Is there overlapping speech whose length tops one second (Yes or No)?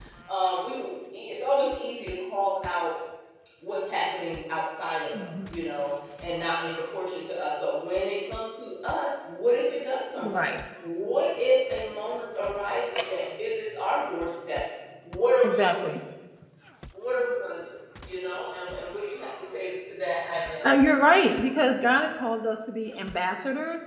No